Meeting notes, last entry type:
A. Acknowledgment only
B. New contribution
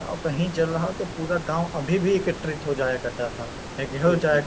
A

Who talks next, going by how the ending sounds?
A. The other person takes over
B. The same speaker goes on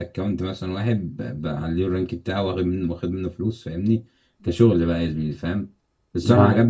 B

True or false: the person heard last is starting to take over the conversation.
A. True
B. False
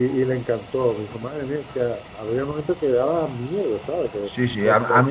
A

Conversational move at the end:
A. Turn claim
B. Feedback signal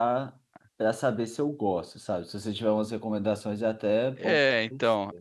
A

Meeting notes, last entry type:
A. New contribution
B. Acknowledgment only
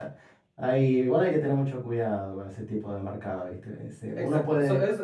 A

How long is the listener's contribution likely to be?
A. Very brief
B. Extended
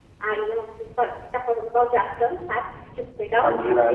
A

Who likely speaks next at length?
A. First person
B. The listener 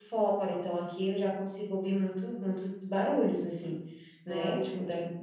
A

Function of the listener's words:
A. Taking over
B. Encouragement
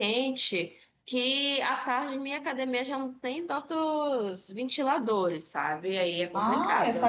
A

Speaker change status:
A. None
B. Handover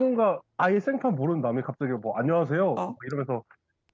A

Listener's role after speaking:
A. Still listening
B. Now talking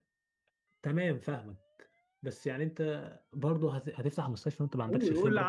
B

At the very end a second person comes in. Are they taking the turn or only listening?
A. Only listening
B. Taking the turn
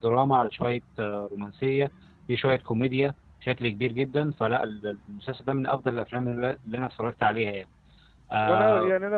B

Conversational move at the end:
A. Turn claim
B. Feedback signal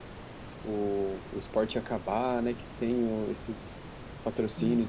B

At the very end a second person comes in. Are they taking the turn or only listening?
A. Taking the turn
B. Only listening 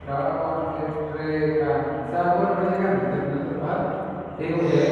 B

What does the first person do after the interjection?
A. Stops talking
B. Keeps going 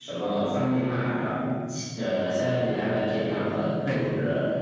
B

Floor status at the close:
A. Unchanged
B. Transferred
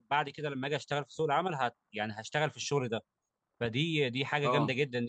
A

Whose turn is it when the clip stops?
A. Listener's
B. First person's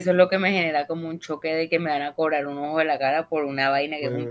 A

